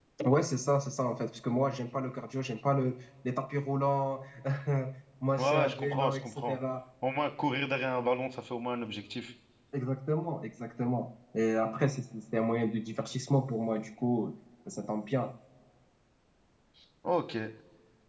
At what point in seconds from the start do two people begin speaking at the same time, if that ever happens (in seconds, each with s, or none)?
5.4 s